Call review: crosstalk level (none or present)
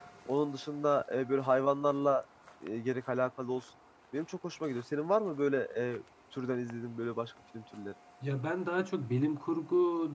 none